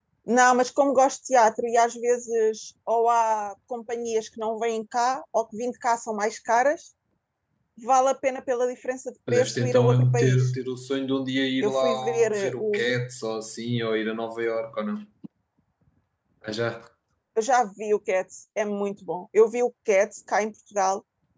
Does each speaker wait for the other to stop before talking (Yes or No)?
No